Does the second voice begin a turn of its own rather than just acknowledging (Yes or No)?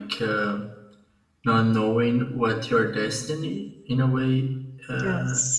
No